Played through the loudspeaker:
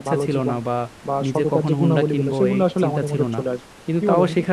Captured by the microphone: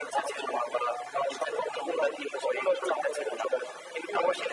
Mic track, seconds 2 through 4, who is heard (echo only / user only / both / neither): echo only